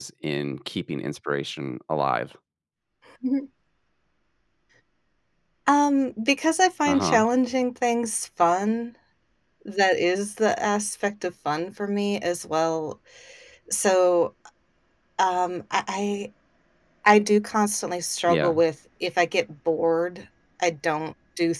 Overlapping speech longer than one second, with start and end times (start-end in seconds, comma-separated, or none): none